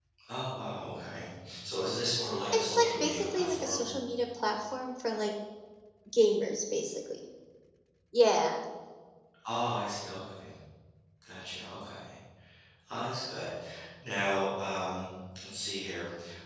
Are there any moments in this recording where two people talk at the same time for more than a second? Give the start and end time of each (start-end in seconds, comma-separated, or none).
2.5-3.8